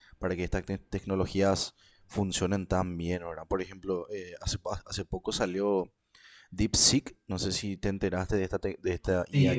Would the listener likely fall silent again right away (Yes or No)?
No